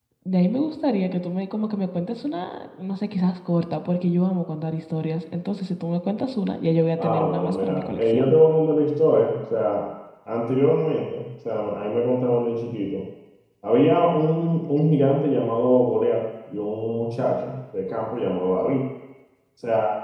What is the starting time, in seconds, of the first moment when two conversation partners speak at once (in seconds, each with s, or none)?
7.0 s